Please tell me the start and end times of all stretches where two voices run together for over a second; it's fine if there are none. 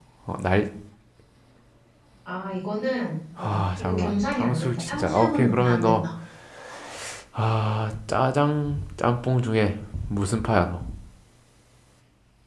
3.4-6.0

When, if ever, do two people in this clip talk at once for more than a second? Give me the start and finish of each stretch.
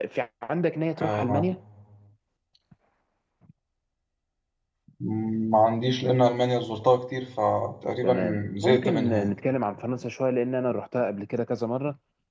8.0-9.3

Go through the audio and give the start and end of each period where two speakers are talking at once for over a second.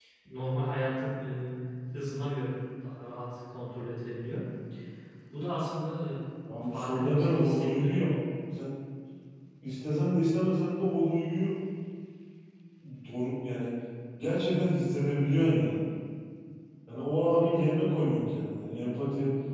6.7-8.0

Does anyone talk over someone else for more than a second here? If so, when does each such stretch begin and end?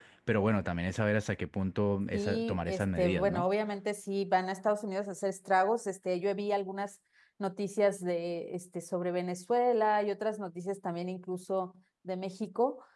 2.1-3.5

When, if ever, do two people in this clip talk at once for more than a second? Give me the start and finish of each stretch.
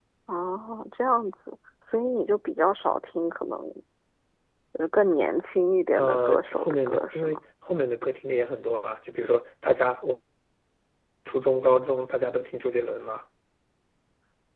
6.0-7.4

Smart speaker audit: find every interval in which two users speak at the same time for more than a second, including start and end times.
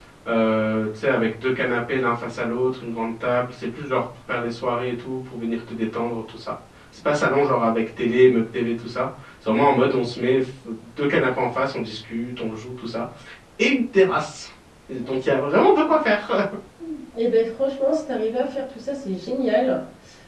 none

